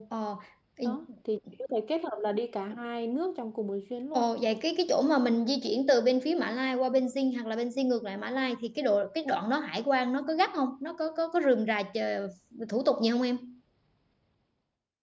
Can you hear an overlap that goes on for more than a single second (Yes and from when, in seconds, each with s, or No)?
No